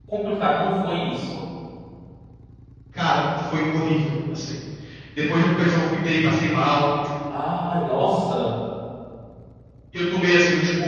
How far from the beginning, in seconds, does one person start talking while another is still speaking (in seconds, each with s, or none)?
none